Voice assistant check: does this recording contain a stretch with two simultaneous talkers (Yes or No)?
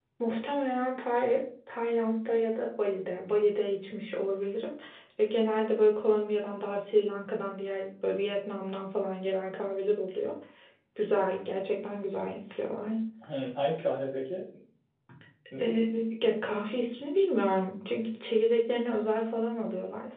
No